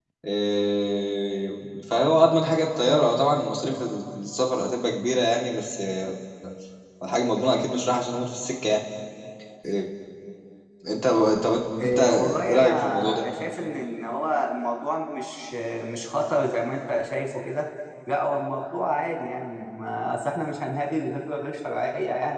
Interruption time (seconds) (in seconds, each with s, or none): 11.8 s